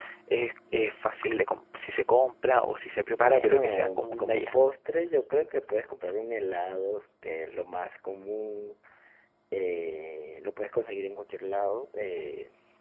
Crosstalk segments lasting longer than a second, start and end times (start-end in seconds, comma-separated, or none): 3.1-4.5